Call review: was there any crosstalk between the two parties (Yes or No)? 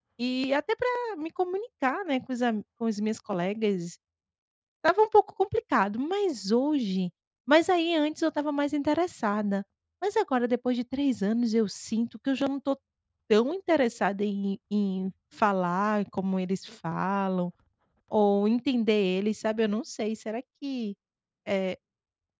No